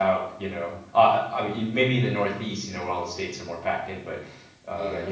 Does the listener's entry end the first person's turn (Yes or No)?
No